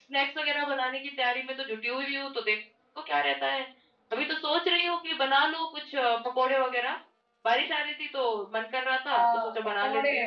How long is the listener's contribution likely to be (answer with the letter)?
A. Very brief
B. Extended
B